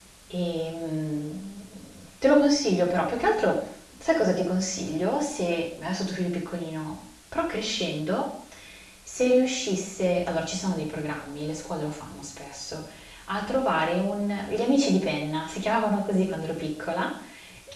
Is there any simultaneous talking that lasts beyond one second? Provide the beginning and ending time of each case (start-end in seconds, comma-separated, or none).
none